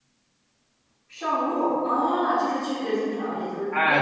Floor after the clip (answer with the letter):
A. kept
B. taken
B